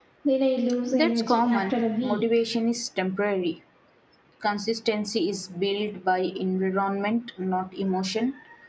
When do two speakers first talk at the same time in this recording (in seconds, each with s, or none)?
0.9 s